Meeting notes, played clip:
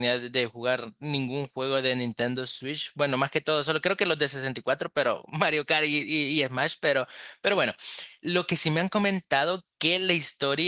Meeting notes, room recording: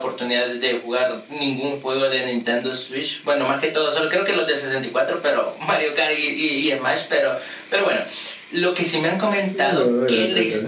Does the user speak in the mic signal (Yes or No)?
Yes